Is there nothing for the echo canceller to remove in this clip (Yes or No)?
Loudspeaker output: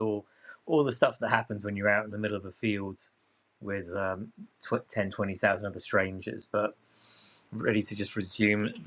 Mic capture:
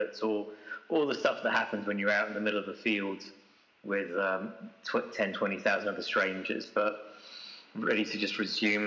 No